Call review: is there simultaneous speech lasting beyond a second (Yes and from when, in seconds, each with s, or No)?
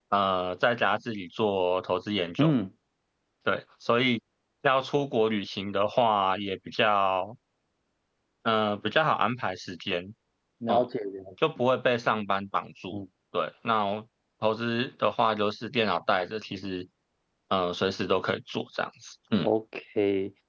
No